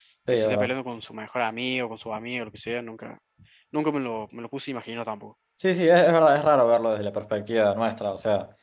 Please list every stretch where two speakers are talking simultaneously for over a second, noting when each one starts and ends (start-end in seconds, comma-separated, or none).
none